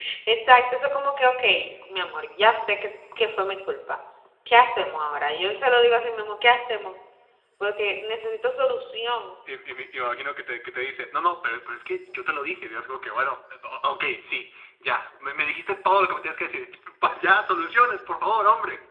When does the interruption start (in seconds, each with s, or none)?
none